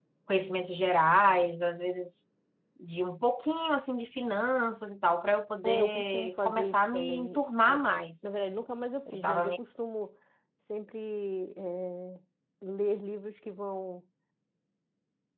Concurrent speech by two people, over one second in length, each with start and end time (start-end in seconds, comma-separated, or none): 5.7-7.8